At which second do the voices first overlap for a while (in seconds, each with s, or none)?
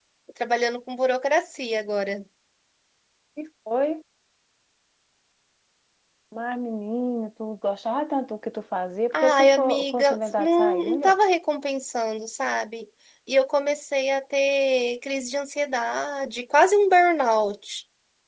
9.1 s